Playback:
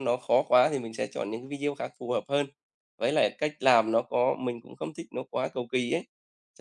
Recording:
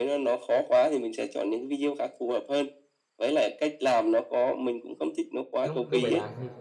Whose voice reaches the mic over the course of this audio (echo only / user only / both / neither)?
both